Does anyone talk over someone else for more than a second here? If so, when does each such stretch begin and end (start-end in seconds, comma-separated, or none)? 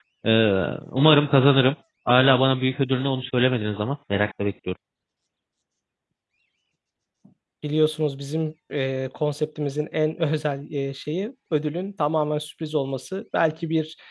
none